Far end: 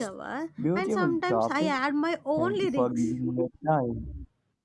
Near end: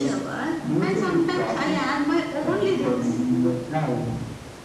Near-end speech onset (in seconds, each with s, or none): none